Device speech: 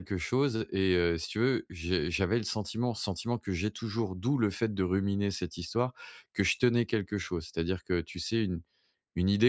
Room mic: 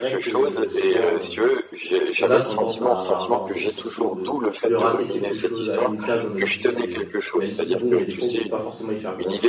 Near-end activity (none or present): present